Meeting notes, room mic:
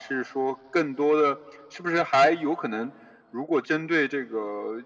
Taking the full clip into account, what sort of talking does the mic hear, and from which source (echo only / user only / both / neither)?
echo only